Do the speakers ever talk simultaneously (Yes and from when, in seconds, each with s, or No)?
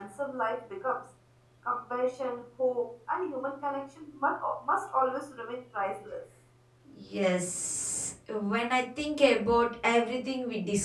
No